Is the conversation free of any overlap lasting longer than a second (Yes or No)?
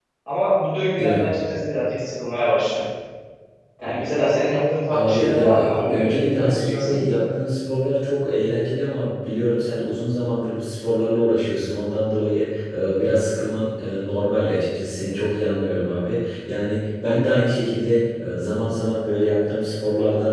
No